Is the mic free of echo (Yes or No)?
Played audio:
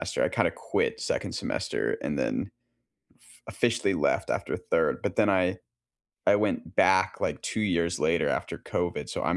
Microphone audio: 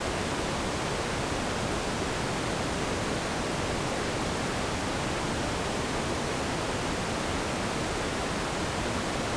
Yes